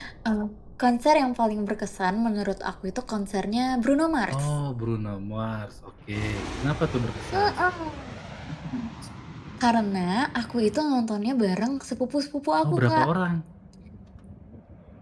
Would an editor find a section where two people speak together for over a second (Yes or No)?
No